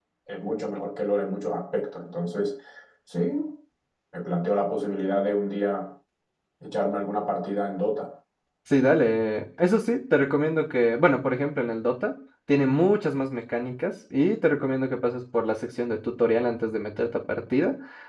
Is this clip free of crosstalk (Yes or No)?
Yes